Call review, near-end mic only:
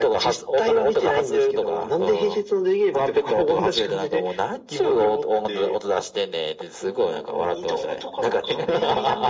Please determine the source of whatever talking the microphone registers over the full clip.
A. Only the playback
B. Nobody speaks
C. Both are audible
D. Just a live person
A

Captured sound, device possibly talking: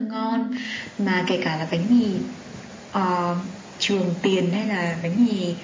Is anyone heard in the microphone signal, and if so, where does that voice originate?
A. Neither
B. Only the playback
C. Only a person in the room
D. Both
B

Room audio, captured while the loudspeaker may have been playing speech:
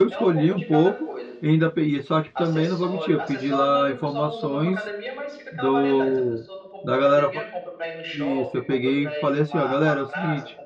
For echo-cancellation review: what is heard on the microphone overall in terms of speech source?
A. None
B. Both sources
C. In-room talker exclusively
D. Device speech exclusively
B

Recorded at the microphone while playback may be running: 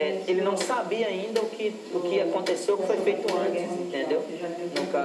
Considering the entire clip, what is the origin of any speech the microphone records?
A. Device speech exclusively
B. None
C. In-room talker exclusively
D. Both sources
D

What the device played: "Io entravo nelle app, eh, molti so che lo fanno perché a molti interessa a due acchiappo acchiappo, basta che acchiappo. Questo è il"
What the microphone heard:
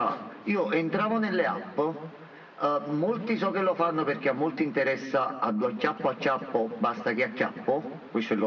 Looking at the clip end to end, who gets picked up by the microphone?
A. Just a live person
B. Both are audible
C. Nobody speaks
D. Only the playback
D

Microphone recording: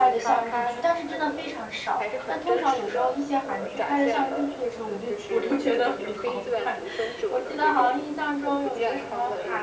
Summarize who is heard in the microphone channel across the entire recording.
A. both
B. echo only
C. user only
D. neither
A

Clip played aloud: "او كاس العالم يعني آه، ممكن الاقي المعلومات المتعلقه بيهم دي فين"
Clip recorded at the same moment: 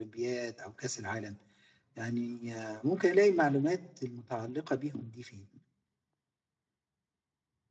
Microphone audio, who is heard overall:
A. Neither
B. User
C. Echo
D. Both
C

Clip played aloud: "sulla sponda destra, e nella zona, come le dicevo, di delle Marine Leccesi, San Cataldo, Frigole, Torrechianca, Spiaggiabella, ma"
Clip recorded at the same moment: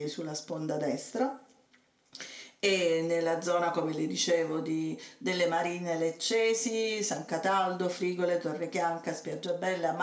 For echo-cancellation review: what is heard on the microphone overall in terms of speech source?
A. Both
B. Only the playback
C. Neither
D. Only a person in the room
B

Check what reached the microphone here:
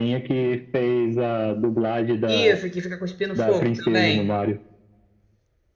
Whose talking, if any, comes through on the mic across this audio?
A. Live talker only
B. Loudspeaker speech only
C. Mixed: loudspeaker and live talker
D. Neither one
C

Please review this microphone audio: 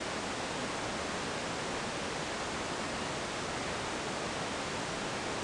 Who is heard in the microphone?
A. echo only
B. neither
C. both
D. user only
B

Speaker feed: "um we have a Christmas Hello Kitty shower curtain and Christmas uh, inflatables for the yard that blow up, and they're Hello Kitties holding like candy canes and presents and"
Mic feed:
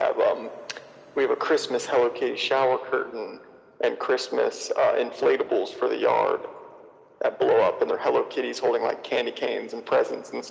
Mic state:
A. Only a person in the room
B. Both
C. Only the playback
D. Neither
C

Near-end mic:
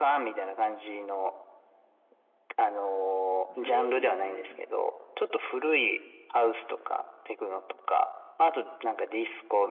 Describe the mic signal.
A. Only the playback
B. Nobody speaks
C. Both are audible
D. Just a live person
C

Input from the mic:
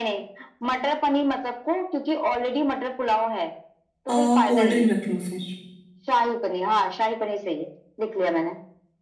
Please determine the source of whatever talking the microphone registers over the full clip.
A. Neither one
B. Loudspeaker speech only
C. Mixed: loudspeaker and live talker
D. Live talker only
C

